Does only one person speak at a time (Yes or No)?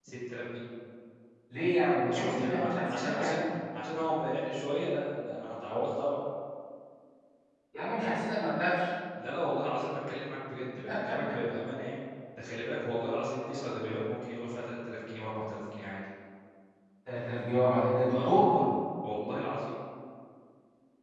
No